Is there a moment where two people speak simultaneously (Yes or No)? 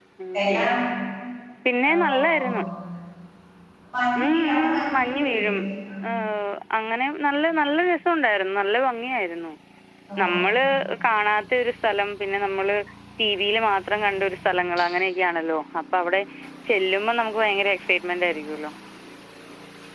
Yes